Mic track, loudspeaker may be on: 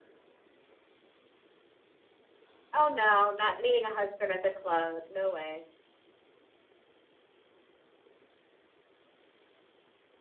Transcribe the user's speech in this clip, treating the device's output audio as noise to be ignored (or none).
Oh no, not meeting a husband at the club. No way.